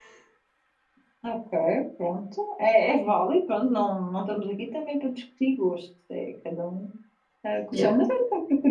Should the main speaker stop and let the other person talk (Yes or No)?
No